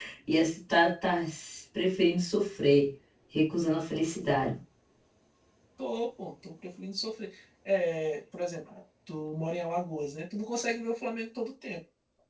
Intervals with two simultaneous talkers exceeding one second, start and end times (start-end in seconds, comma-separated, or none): none